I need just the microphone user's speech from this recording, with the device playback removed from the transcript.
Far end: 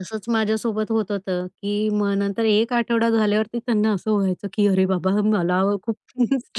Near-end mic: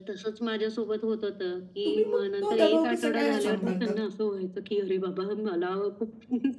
तुम्ही मग तो दबाव कसा काय सांभाळता?

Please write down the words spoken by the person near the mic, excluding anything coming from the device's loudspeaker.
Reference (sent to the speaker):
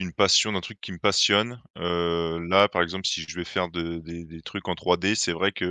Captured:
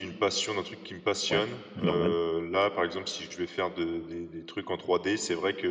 Ouais, normal.

